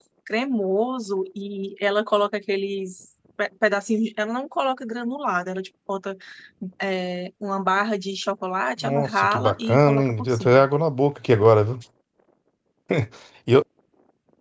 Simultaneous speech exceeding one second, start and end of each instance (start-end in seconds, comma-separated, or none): 8.8-10.6